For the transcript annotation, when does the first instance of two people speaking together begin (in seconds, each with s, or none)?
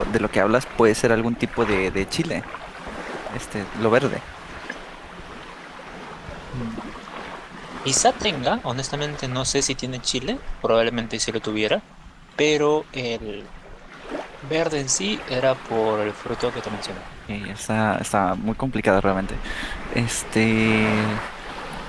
none